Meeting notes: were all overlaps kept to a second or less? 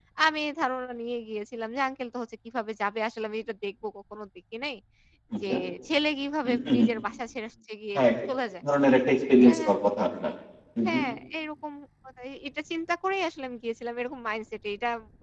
Yes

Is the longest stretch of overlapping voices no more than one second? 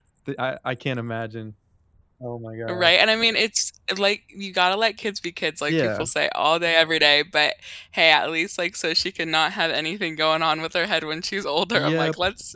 Yes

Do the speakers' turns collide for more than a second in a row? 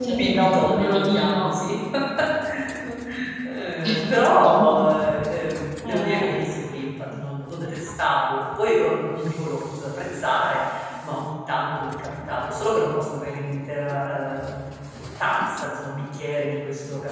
Yes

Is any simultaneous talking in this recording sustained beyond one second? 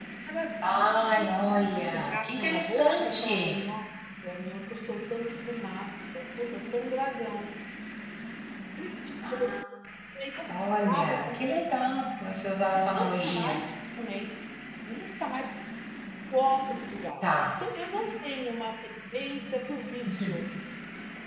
Yes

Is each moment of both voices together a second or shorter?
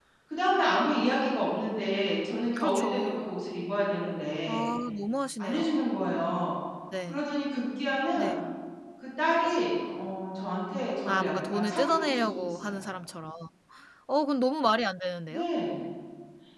No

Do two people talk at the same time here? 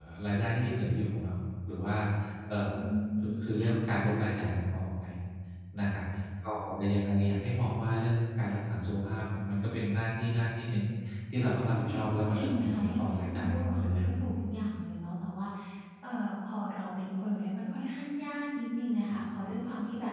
Yes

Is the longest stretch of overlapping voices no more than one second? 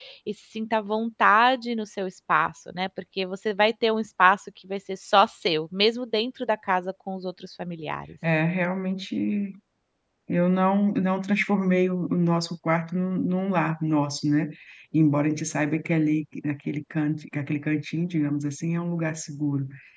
Yes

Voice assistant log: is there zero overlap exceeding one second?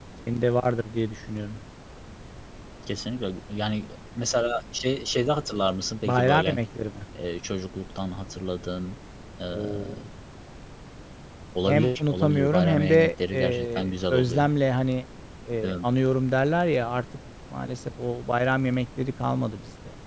No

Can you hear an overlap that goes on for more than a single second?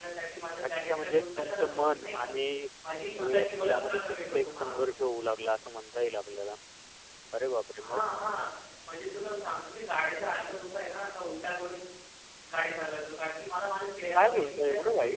Yes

